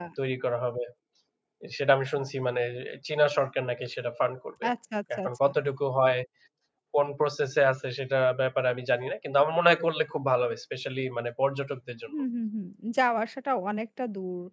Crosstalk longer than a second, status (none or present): none